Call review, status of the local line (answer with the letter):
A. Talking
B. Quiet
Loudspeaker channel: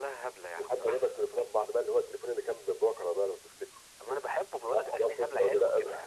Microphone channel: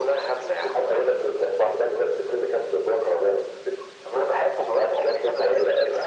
B